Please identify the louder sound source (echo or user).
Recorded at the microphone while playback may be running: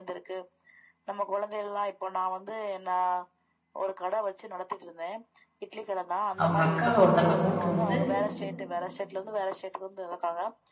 user